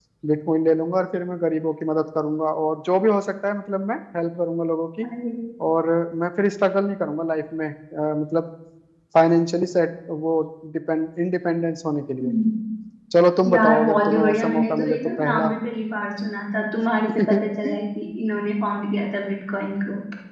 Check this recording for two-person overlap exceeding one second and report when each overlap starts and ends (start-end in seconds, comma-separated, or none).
13.5-15.5